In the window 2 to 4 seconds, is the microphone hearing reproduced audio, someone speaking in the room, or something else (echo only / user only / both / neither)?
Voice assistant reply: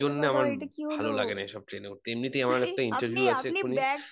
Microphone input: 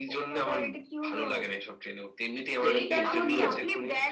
both